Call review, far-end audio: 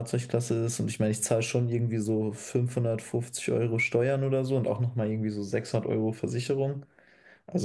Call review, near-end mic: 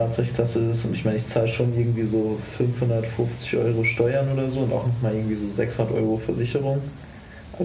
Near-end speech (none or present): none